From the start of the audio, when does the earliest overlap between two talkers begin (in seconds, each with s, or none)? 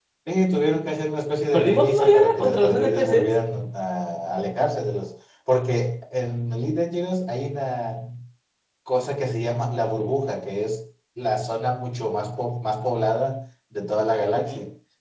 1.5 s